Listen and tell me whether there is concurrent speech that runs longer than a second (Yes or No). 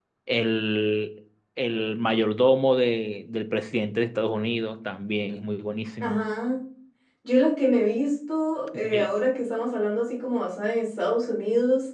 No